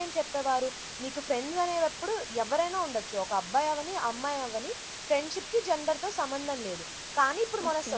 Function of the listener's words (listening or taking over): listening